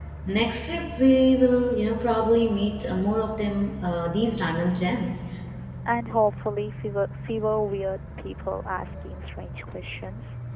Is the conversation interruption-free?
Yes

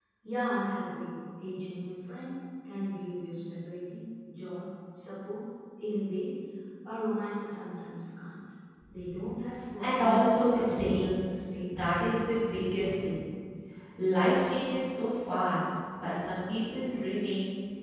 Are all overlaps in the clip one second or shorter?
No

